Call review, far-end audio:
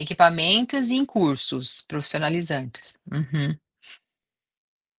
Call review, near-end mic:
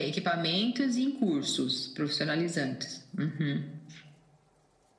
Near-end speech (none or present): none